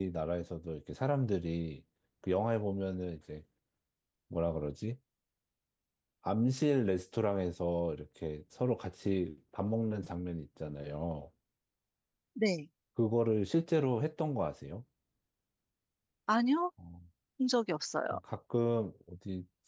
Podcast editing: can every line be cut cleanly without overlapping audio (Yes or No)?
Yes